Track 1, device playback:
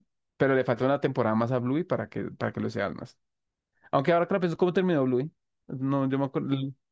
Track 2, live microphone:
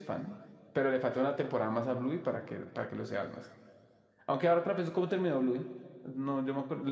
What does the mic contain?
echo only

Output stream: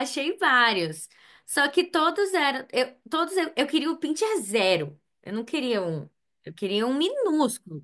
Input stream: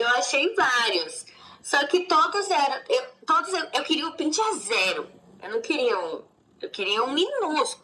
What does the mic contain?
echo only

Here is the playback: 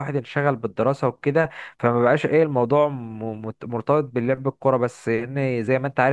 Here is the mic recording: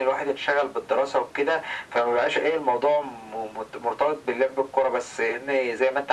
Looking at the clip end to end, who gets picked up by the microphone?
echo only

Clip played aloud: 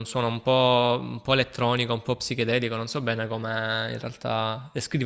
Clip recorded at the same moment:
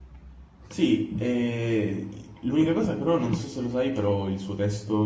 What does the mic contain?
user only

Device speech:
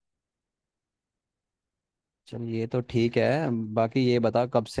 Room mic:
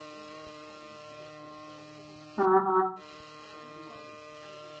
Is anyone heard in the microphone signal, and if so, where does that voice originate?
user only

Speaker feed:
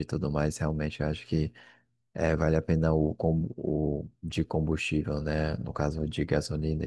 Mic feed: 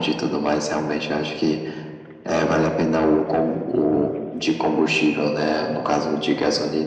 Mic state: both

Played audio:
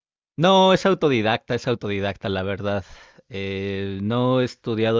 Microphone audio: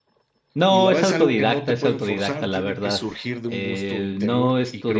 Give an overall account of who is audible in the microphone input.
both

